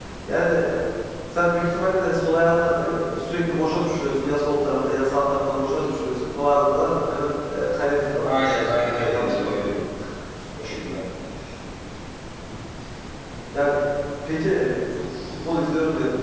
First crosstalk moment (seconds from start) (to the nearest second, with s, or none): 8 s